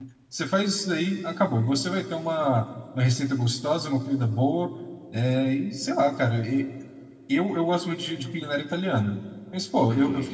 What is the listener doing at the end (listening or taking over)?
listening